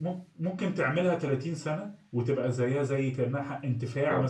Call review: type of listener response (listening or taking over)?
taking over